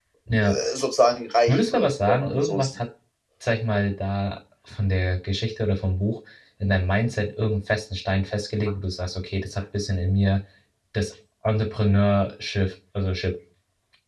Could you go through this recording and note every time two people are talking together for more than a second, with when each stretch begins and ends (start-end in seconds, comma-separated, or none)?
1.5-2.7